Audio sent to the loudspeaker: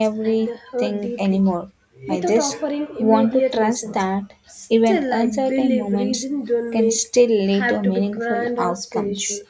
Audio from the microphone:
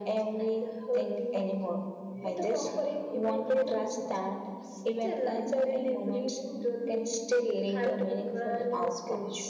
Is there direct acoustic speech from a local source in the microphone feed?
No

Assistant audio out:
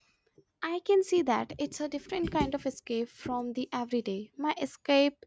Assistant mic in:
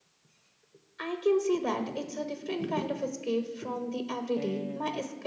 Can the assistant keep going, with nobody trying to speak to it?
No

